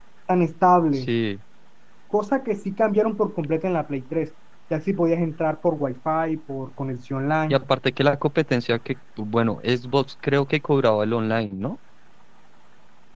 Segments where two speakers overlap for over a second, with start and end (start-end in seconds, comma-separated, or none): none